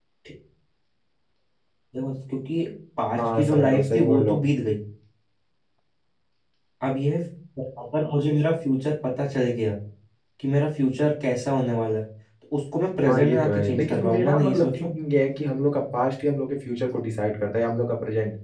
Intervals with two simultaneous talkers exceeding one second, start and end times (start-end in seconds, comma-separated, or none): 3.2-4.4, 13.1-14.9